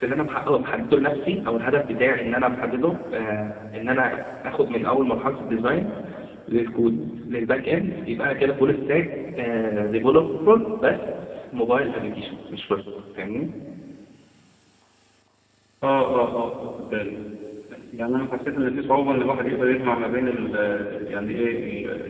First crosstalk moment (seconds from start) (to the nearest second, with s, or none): none